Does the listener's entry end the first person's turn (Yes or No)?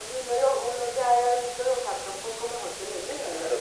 Yes